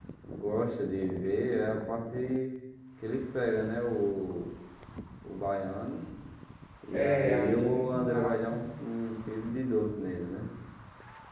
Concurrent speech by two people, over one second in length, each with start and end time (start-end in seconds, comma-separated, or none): 6.9-8.5